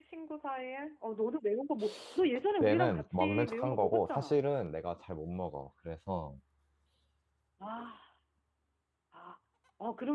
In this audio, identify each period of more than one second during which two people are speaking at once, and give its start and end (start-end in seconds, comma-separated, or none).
2.6-4.4